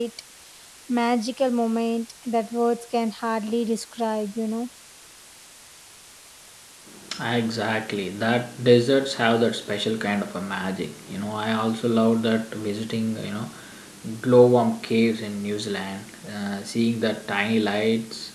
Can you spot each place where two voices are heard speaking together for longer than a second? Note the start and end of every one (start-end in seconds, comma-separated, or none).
none